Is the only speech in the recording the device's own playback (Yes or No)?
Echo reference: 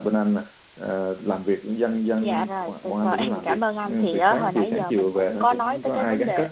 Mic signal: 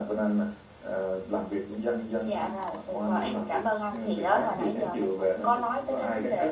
Yes